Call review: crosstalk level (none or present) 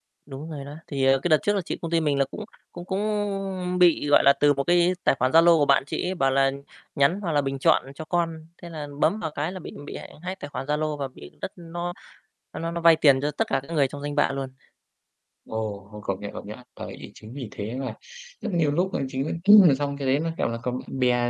none